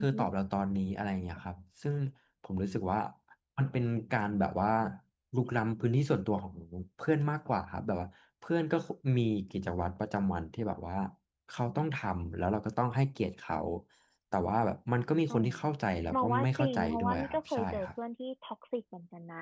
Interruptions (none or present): present